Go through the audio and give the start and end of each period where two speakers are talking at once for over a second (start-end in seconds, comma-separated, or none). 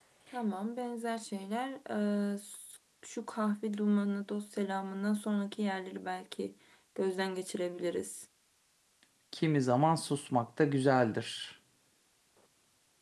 none